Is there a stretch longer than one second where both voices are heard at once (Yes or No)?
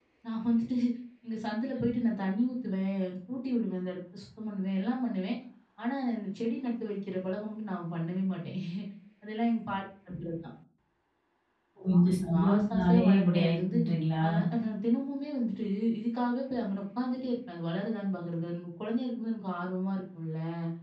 Yes